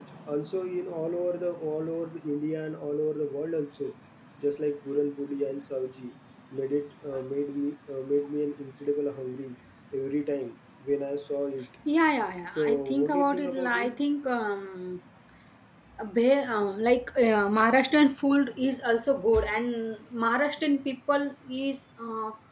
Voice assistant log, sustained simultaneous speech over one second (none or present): present